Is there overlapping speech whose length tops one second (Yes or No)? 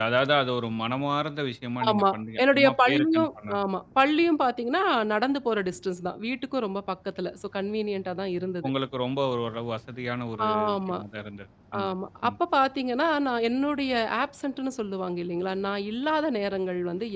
Yes